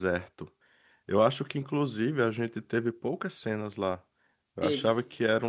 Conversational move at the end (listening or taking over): listening